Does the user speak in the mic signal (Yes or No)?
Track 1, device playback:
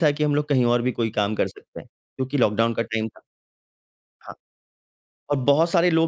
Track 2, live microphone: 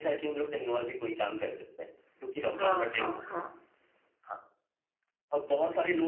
Yes